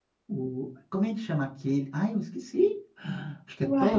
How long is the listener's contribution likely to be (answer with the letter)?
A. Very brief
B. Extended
A